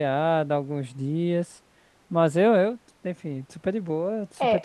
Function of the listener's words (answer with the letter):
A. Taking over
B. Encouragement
A